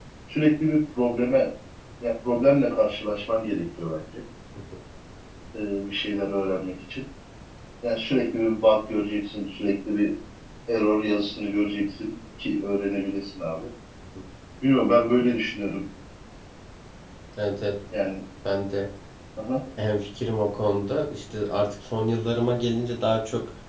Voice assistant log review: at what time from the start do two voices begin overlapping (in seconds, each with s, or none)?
none